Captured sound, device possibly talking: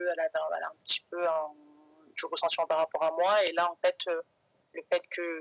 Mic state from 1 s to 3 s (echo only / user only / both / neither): echo only